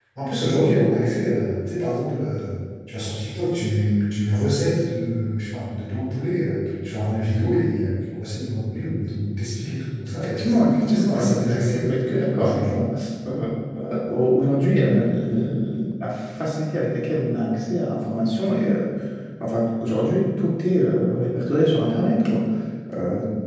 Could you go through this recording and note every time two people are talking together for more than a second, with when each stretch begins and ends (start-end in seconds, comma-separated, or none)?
10.2-11.8